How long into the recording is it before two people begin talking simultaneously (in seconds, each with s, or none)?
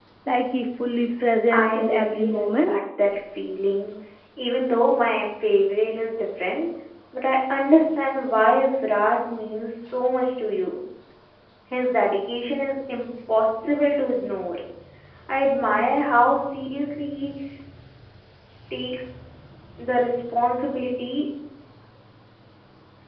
1.5 s